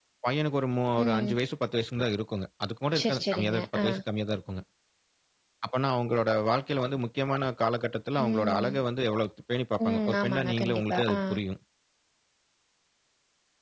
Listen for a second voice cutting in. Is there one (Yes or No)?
Yes